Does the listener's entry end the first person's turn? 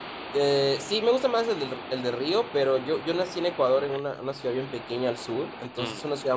No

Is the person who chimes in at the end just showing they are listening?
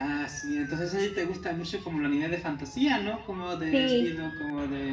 Yes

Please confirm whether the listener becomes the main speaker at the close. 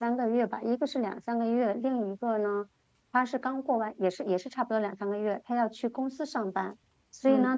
No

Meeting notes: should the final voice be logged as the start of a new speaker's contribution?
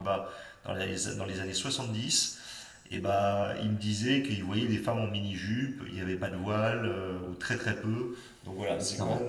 Yes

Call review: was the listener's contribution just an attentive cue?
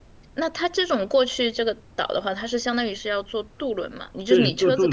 No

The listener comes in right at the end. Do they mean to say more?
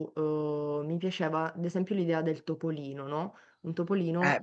Yes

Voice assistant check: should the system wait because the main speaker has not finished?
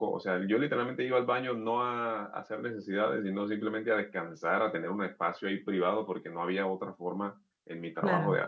Yes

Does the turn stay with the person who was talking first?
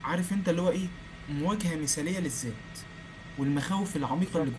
No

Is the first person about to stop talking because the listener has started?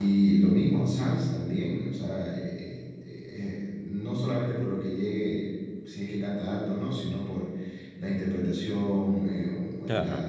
No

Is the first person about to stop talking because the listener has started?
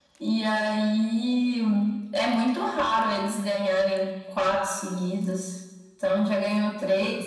No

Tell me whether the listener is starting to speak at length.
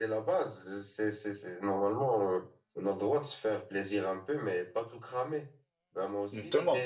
No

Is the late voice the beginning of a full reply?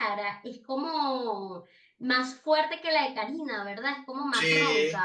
Yes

